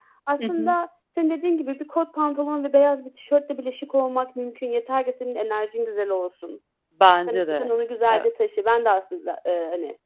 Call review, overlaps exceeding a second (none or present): none